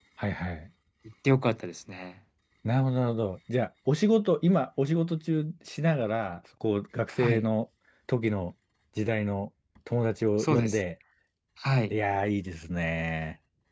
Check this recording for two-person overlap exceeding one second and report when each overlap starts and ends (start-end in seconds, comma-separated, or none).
none